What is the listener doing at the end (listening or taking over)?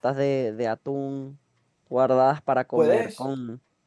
listening